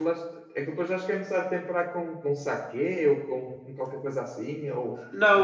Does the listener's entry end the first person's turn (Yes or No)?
Yes